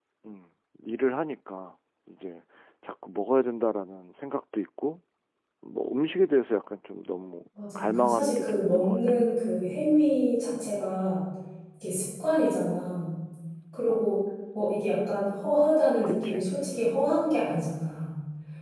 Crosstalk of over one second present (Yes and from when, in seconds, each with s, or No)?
Yes, from 7.8 s